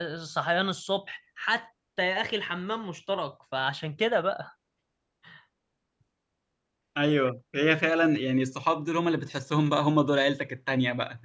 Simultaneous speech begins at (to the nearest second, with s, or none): none